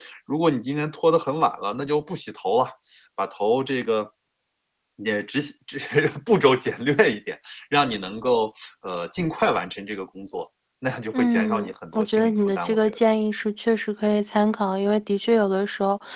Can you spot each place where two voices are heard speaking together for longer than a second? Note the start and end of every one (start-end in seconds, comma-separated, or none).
11.1-13.0